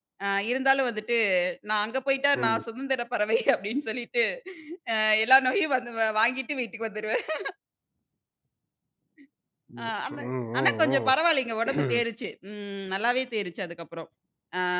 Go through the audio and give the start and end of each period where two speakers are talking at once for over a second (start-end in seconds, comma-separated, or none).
none